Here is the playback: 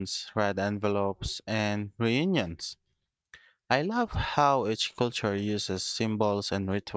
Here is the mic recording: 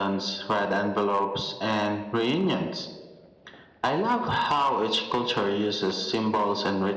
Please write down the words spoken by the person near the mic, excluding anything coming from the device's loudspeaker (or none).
none